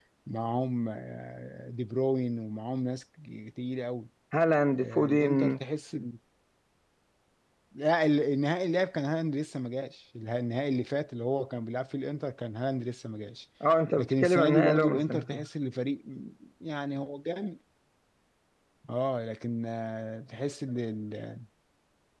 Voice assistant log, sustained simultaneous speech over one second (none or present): present